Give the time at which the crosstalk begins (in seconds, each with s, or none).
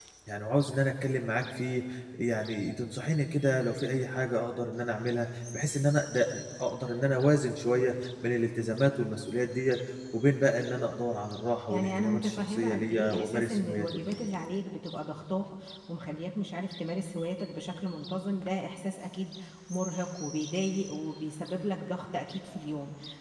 11.7 s